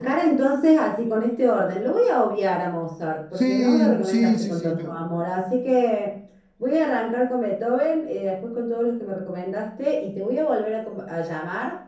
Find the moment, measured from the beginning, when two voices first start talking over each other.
3.4 s

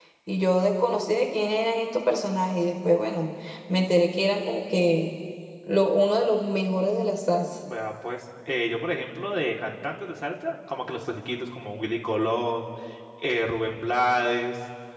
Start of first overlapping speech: none

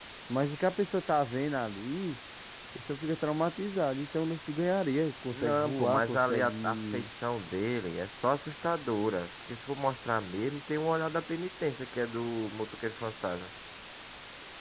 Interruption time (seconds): 5.3 s

